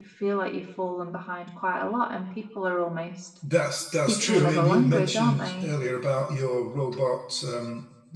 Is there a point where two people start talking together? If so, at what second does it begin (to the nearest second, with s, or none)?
4 s